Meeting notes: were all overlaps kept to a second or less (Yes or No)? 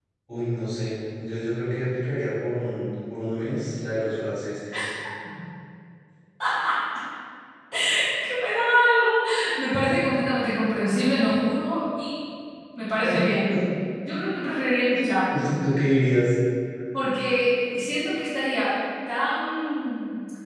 Yes